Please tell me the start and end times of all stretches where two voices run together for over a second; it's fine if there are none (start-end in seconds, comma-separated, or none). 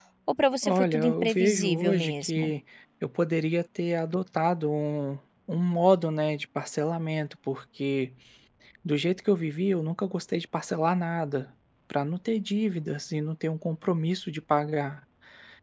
0.6-2.5